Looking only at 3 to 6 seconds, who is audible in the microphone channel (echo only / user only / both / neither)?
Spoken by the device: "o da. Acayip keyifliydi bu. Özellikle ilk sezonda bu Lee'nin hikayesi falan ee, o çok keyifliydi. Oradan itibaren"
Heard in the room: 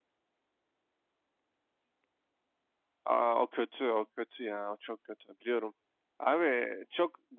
user only